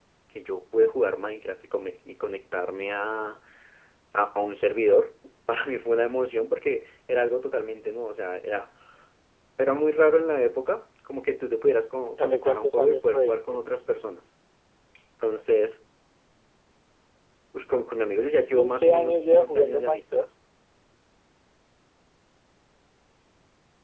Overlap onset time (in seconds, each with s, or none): 12.2 s